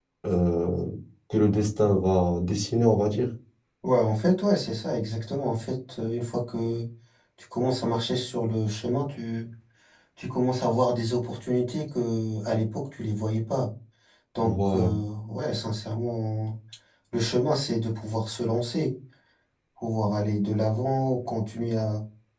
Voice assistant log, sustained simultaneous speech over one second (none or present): none